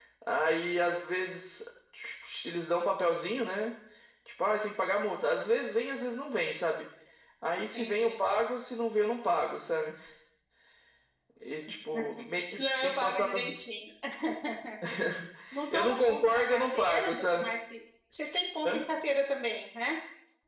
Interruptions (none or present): present